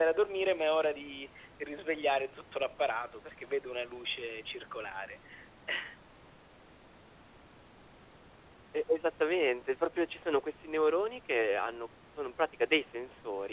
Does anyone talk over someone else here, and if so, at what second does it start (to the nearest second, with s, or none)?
none